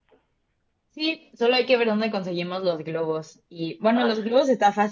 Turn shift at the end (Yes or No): No